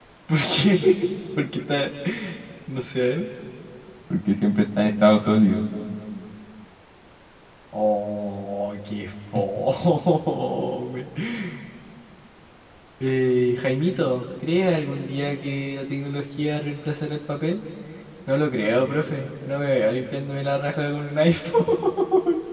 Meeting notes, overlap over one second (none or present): none